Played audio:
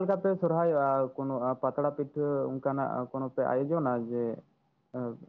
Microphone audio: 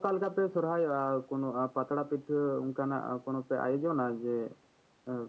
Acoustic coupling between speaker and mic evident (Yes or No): Yes